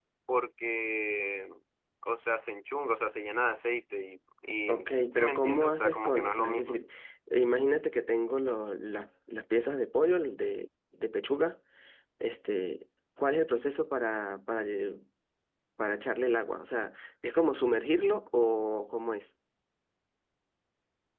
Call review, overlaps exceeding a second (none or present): present